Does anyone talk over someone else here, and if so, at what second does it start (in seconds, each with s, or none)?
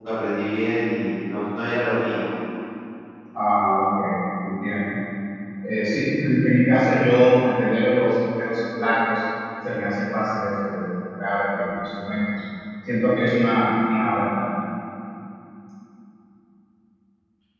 none